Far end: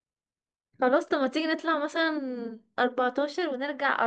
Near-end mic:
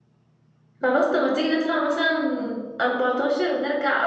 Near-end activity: none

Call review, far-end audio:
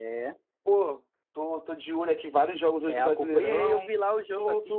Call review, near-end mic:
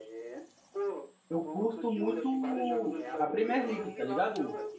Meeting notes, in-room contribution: present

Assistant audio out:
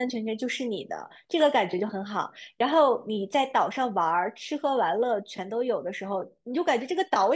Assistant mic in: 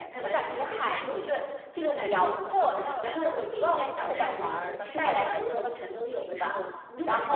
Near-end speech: present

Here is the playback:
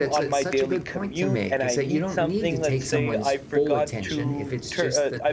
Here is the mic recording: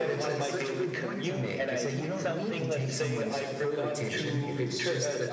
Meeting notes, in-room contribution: none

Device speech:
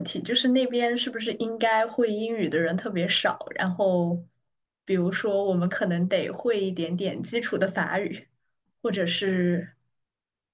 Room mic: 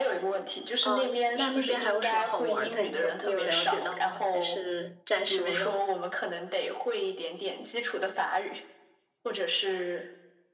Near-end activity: present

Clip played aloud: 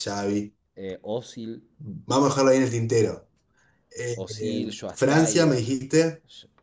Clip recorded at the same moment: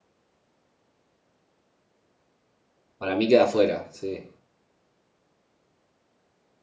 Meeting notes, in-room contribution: present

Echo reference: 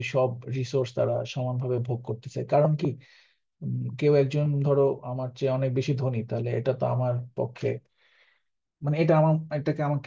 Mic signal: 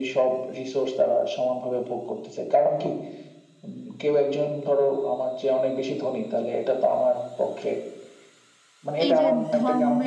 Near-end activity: present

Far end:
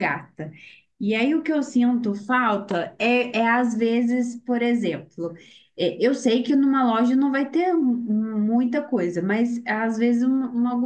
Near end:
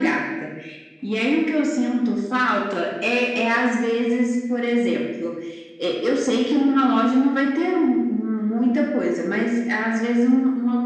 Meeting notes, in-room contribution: none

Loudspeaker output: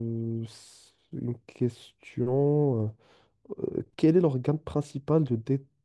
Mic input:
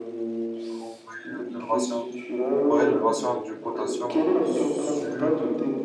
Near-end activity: present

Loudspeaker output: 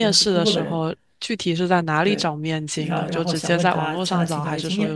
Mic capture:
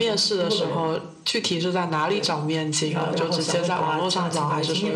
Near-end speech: none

